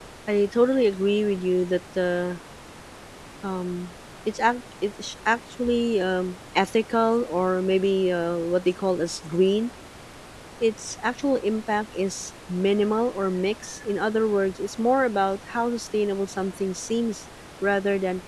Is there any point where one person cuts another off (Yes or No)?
No